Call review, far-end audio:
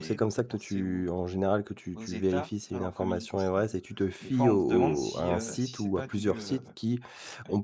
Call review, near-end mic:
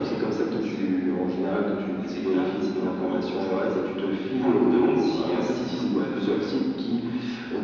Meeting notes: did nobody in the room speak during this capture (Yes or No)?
Yes